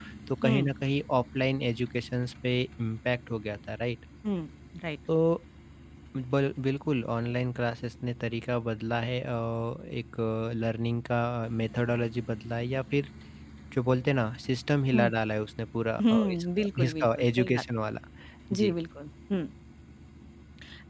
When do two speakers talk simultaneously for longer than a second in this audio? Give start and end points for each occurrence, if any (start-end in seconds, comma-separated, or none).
16.1-17.6